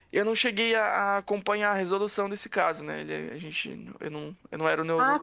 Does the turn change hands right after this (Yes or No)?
Yes